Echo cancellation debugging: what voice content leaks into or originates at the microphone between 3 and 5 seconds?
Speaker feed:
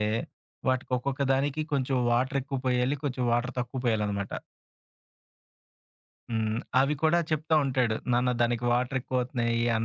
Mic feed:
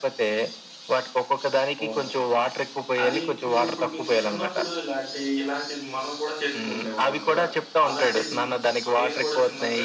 both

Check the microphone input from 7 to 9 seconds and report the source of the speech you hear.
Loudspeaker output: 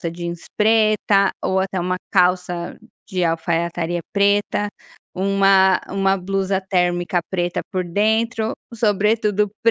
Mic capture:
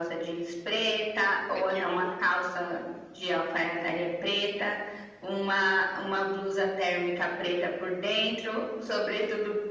echo only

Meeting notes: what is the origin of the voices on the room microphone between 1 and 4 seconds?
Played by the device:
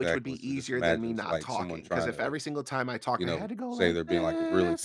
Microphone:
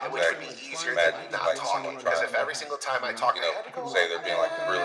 both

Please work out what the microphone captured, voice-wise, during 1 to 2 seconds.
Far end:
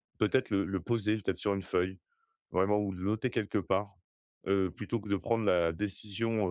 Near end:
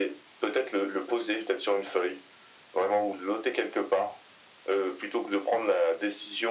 echo only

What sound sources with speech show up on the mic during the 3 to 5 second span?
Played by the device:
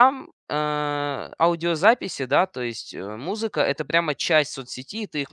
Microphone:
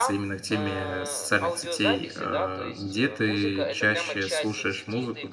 both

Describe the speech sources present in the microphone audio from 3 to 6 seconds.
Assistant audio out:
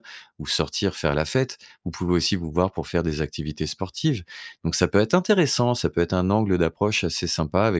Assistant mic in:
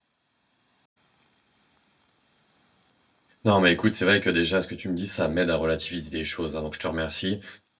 user only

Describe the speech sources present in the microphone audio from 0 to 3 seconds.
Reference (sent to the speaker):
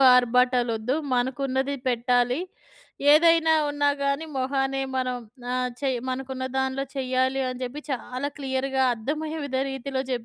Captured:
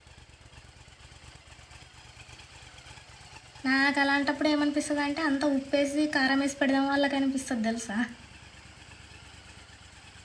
neither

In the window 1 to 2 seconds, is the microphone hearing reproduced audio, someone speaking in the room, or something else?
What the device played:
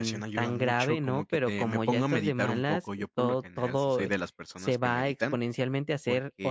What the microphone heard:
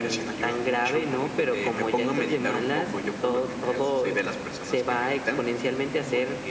echo only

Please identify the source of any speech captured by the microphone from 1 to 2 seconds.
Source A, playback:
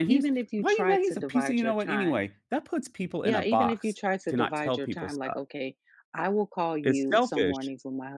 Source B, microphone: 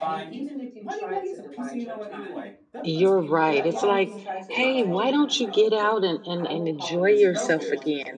echo only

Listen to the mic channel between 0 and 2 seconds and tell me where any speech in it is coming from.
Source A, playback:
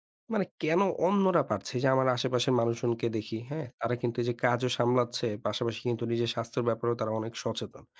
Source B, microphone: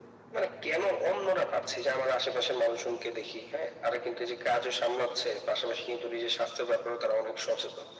echo only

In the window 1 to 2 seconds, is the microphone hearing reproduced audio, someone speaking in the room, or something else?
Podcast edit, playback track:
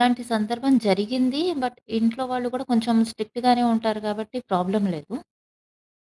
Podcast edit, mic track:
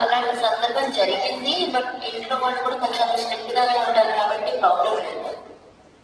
echo only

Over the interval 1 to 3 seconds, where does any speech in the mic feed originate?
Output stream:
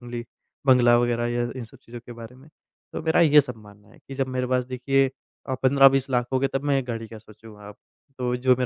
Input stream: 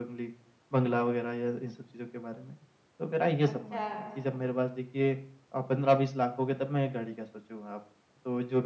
echo only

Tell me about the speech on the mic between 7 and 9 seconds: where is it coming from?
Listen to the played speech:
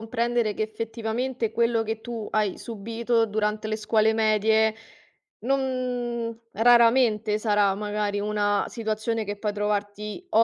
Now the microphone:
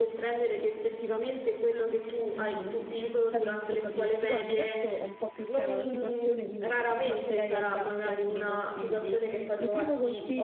both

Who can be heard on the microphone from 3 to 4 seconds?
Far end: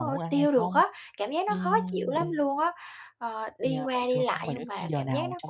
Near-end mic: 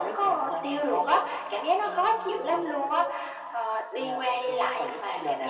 echo only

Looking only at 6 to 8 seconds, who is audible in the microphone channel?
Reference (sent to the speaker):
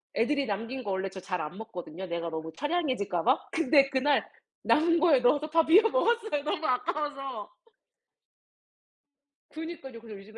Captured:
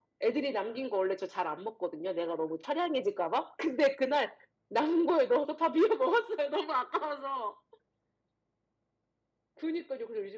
echo only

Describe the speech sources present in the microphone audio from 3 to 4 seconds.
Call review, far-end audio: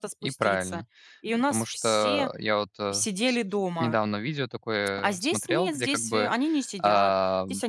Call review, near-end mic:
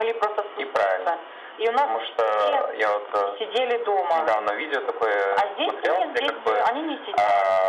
echo only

